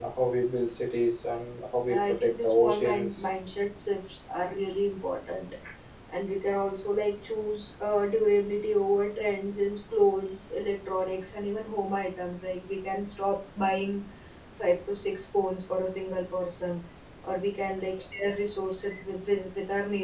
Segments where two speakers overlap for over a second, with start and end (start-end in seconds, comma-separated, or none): 1.9-3.2